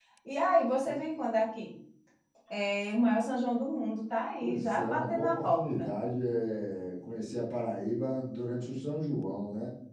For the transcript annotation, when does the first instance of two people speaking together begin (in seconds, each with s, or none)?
4.4 s